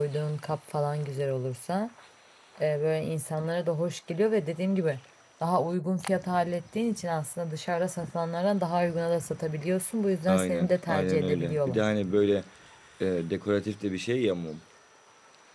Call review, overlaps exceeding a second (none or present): present